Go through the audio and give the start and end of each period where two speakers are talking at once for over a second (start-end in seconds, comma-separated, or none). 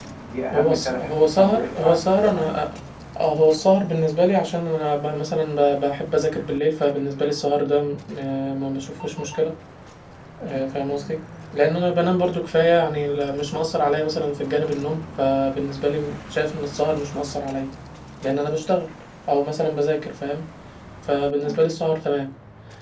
0.5-2.6